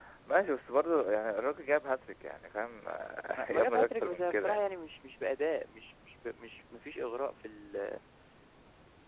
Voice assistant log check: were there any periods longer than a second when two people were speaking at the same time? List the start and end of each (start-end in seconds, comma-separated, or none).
3.4-4.7